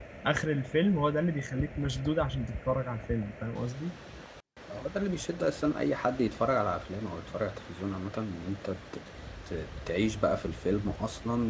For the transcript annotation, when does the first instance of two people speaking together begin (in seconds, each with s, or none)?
none